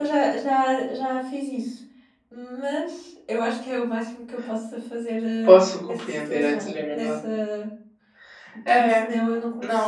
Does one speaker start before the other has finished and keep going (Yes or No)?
Yes